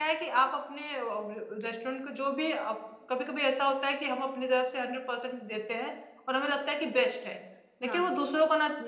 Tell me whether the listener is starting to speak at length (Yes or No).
No